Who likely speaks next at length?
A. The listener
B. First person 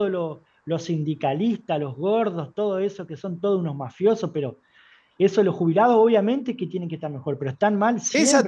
A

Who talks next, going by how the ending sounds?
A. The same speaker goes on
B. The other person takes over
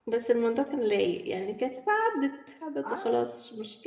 B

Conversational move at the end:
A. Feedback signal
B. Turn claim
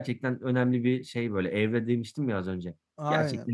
B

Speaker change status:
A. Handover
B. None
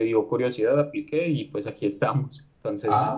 A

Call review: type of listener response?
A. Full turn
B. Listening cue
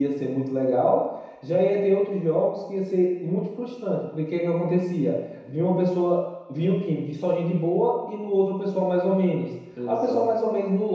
B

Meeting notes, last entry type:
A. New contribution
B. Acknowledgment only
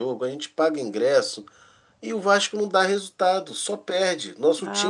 A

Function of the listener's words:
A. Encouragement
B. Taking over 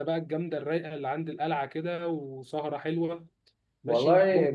B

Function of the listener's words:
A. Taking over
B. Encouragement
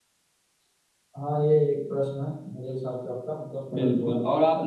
A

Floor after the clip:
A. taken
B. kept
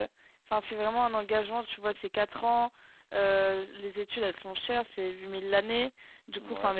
B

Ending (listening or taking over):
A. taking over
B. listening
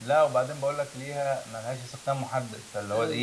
A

